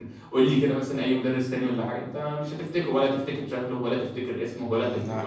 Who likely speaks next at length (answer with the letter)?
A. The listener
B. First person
A